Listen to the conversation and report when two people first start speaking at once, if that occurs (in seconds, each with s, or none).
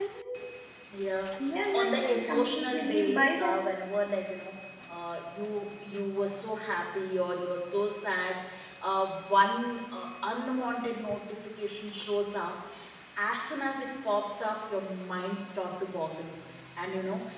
1.7 s